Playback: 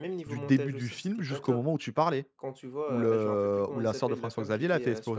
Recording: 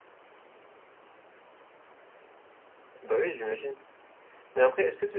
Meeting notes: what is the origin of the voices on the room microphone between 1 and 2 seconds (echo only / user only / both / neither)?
neither